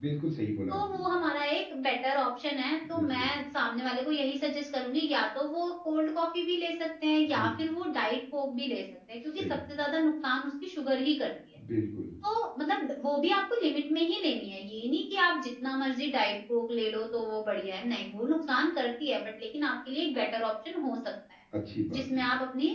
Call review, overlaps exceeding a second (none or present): none